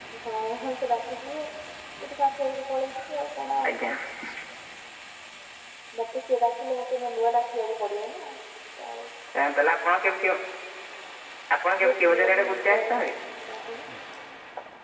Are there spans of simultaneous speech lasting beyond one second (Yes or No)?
Yes